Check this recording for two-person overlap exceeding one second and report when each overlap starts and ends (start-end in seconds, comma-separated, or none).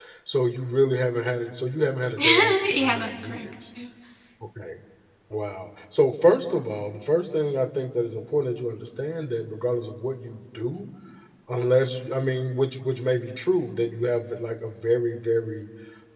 2.2-3.5